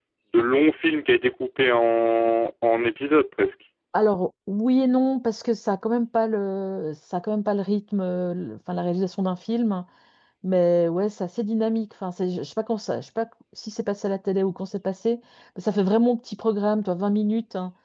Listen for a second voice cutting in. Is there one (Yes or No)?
No